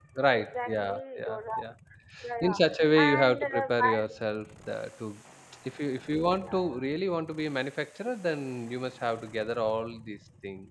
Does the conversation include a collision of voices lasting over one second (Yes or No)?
Yes